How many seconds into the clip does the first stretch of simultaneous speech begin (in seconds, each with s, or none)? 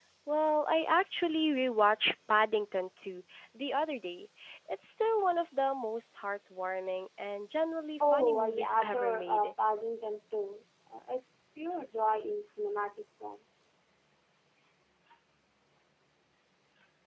8.0 s